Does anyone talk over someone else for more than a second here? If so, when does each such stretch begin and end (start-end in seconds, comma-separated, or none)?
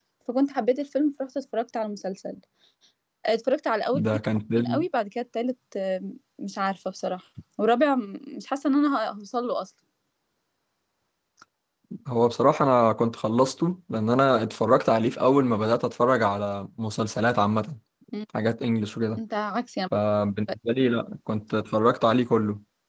none